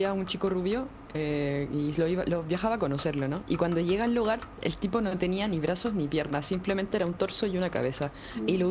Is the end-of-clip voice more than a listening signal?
No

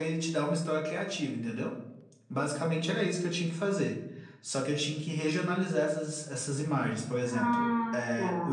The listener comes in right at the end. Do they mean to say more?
No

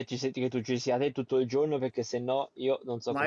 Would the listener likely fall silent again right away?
No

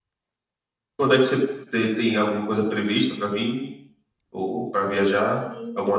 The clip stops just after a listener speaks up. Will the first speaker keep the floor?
No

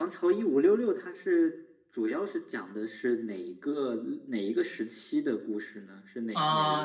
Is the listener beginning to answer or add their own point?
Yes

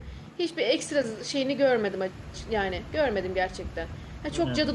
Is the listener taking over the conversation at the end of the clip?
No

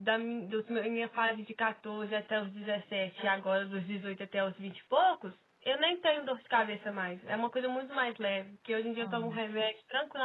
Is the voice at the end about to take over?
No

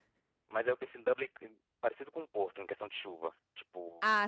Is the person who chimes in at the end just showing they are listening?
No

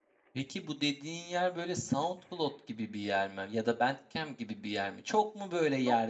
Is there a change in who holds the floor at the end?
No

